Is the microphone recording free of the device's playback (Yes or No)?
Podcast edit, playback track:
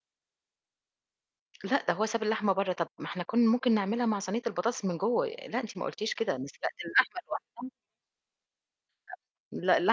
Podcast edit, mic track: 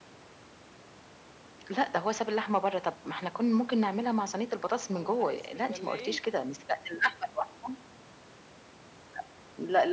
No